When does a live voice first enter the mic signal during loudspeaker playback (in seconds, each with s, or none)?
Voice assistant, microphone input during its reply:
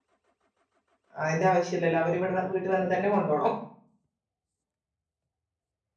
1.2 s